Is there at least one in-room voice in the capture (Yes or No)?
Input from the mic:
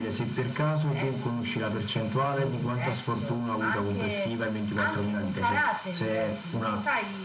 No